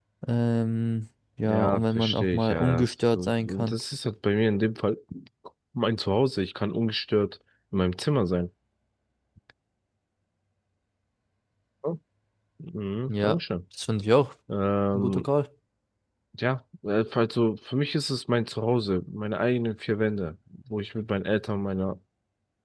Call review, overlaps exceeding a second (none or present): present